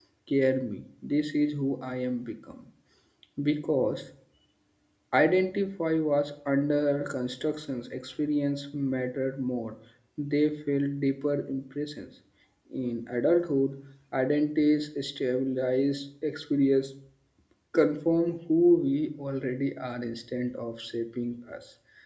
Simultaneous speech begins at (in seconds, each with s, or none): none